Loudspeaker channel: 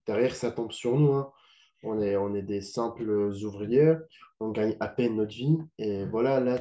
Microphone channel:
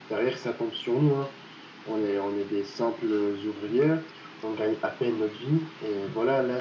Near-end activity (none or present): none